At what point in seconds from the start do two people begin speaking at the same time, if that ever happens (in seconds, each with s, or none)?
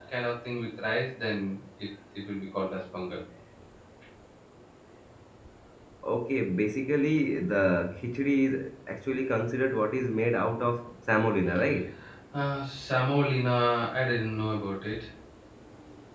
none